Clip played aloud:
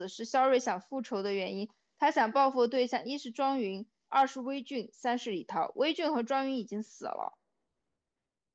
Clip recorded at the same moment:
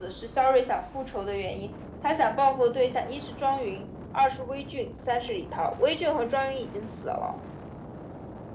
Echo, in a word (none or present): present